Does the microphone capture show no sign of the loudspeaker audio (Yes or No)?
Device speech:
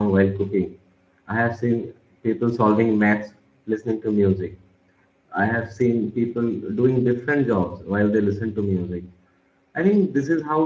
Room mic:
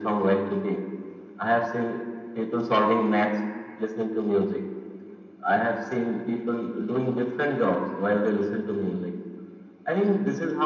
No